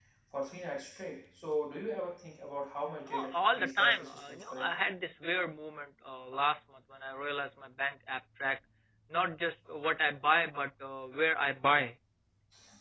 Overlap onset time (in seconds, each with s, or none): 3.1 s